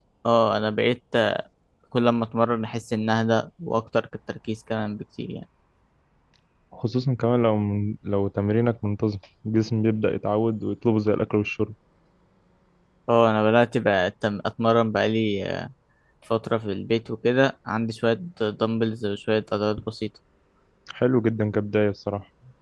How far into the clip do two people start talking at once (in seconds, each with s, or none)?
none